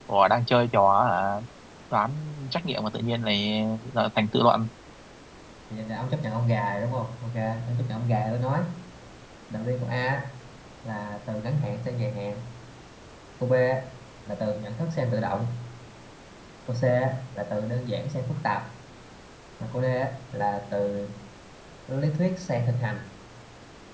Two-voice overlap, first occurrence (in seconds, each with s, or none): none